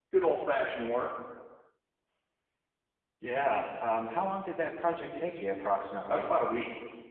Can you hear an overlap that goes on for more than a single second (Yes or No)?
No